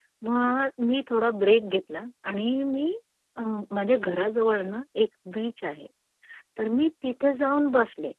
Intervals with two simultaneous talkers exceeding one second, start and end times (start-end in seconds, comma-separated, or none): none